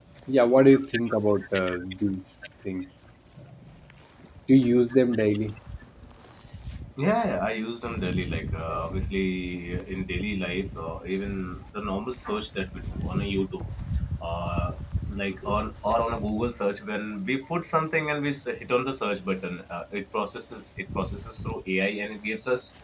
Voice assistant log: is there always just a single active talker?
Yes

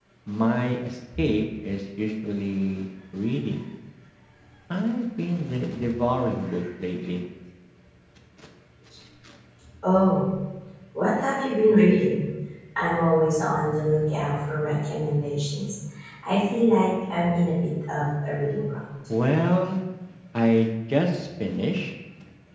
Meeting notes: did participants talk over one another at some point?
No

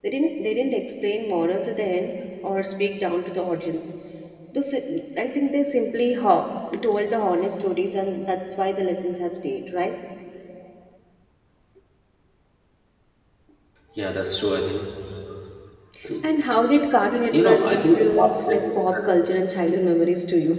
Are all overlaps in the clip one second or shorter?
No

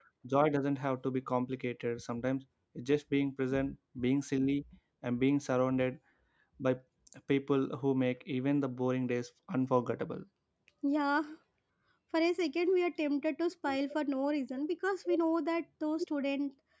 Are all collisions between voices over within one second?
Yes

